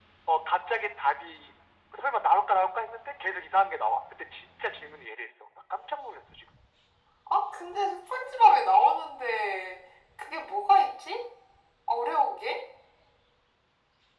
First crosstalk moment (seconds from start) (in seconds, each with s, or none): none